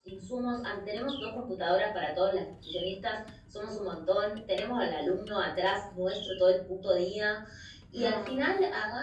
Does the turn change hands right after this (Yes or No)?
No